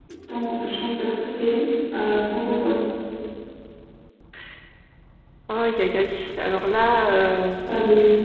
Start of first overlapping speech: none

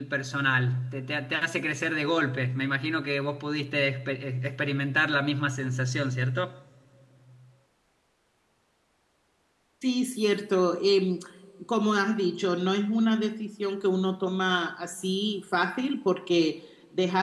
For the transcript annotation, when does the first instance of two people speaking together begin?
none

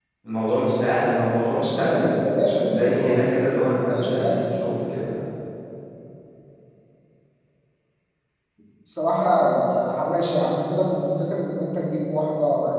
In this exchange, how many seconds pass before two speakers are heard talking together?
1.5 s

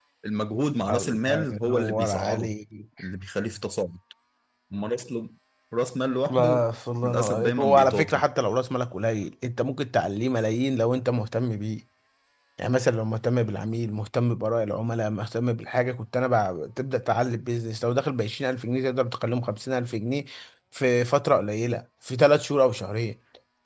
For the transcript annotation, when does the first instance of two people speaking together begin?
0.9 s

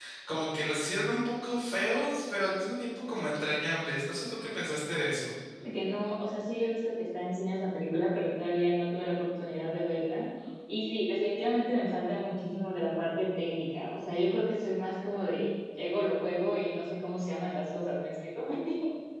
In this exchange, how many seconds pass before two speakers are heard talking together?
none

